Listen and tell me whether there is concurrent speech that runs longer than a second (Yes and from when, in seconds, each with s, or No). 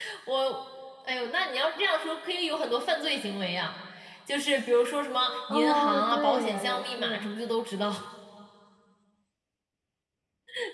Yes, from 5.5 s